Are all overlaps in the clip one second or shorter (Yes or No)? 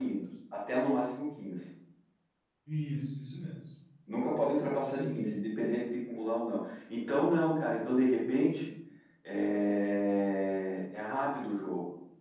Yes